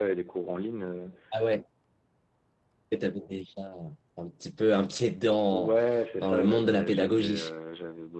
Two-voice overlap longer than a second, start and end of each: 6.2-7.5

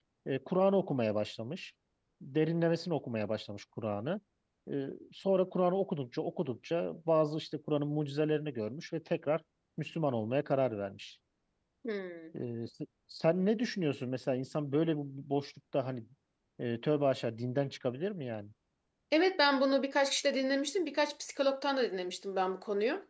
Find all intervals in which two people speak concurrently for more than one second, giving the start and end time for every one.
none

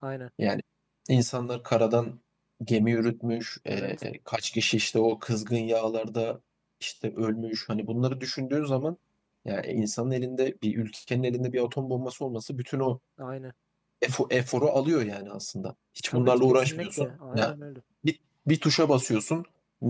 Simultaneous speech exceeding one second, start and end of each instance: 16.1-17.5

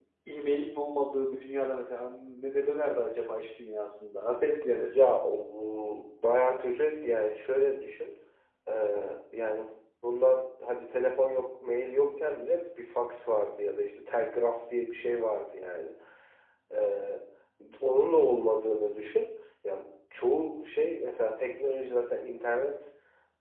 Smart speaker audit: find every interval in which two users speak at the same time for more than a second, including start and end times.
none

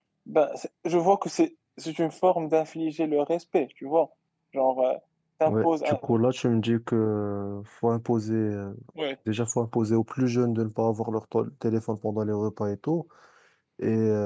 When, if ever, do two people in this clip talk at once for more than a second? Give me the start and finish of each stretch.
none

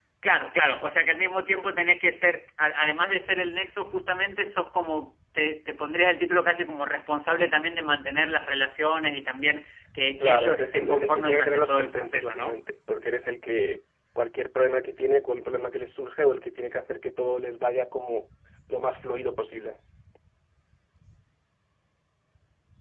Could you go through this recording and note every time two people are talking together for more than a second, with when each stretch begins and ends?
10.2-12.6

